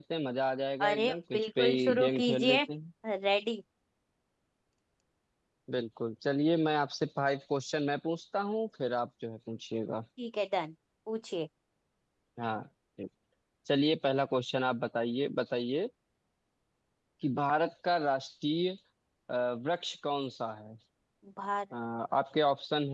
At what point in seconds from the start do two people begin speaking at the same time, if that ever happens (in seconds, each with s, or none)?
0.9 s